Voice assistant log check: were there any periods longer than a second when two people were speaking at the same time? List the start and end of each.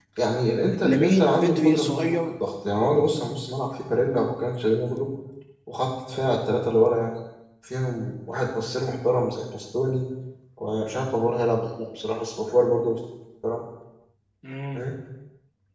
0.8-2.2

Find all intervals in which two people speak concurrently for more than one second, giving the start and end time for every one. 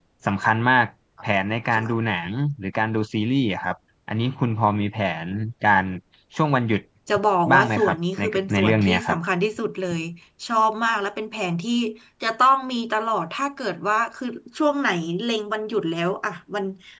7.5-9.2

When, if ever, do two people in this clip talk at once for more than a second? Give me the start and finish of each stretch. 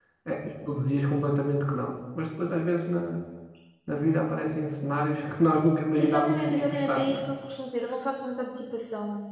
6.0-7.2

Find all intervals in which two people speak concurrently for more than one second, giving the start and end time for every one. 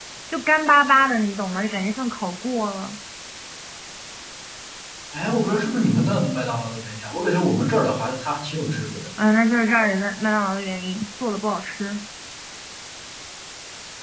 none

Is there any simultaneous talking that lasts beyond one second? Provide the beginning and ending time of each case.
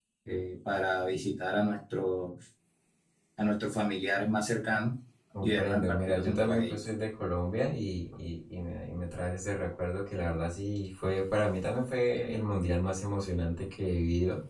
5.4-6.8

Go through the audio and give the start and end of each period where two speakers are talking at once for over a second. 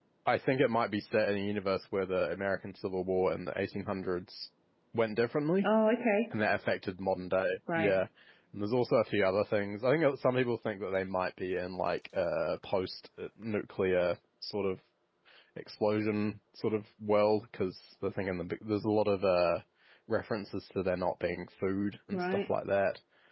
none

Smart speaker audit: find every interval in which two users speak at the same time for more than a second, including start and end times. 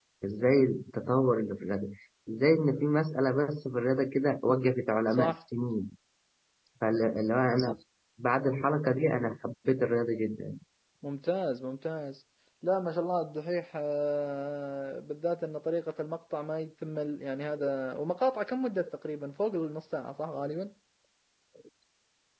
none

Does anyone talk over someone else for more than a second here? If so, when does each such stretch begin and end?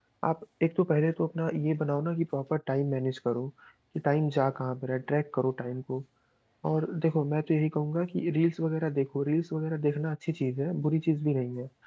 none

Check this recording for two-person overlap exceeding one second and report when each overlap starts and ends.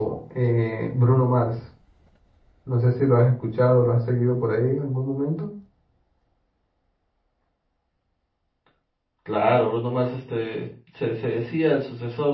none

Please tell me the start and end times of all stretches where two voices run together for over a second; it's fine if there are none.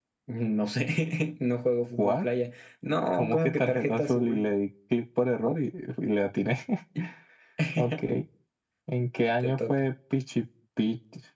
3.1-4.5

